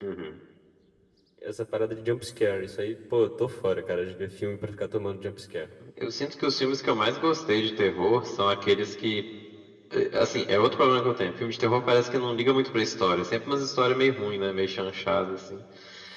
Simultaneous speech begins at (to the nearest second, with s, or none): none